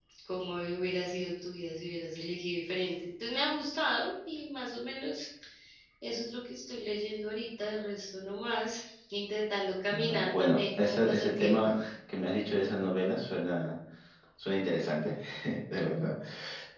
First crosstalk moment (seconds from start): 10 s

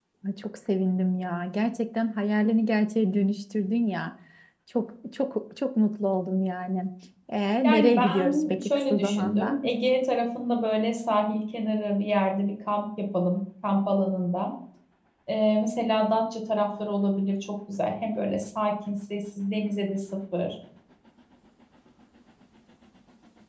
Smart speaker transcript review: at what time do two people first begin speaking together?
8 s

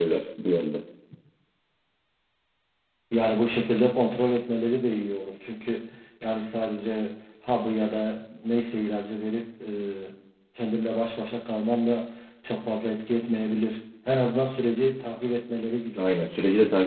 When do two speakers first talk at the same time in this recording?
none

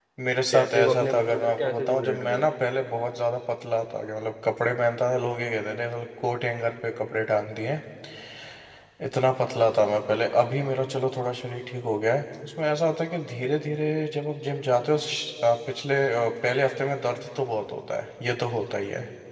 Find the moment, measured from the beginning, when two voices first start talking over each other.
1 s

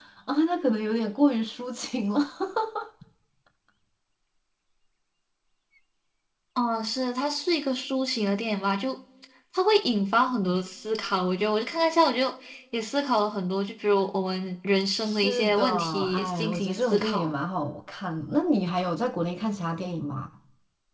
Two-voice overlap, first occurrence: 15 s

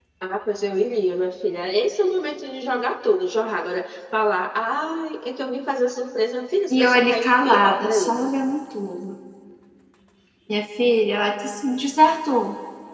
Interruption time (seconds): 7 s

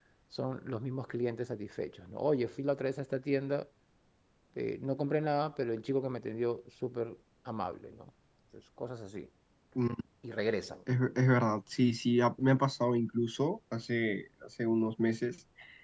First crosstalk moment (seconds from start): none

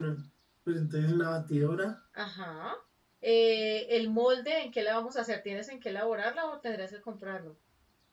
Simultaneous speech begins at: none

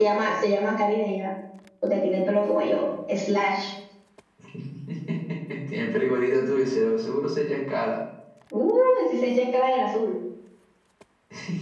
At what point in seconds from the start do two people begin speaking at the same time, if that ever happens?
none

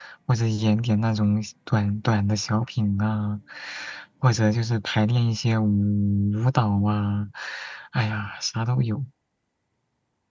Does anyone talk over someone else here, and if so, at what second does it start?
none

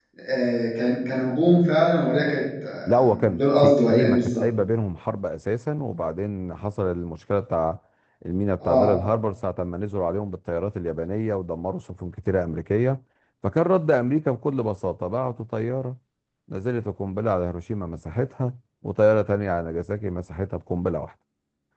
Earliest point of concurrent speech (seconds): 3 s

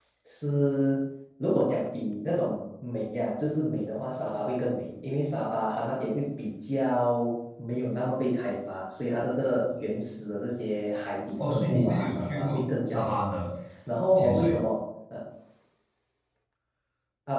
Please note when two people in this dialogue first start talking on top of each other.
11 s

